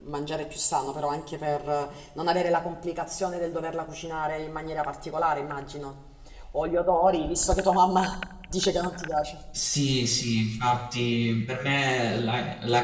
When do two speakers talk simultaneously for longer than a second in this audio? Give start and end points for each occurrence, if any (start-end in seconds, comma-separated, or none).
none